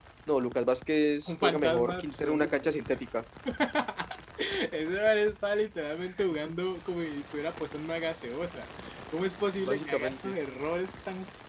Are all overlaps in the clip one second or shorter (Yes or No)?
No